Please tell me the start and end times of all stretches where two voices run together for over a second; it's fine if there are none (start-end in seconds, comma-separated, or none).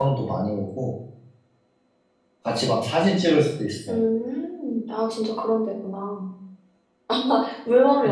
none